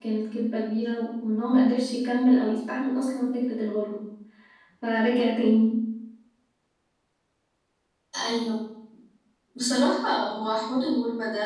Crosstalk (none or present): none